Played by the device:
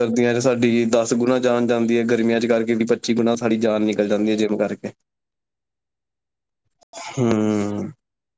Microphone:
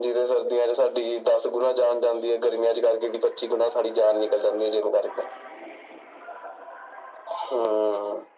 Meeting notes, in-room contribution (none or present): none